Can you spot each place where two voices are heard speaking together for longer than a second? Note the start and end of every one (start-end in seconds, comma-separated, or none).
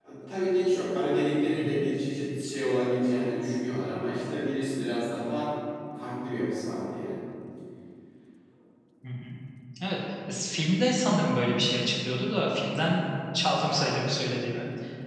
none